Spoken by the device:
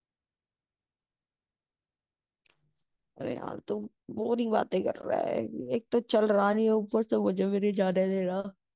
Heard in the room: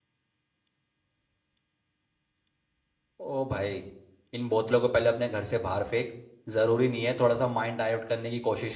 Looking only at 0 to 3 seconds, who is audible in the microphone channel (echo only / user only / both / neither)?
neither